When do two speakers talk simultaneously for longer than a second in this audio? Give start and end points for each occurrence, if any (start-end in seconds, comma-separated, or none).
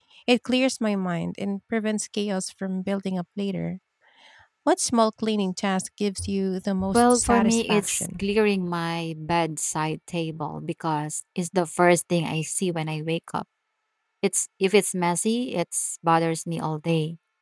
6.9-8.2